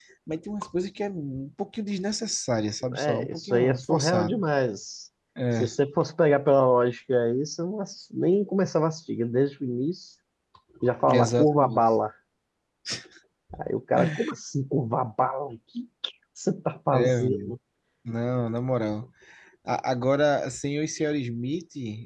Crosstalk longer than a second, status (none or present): present